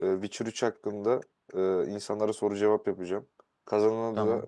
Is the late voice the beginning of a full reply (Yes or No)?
No